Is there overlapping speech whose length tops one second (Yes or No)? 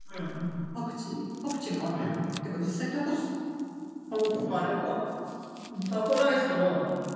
No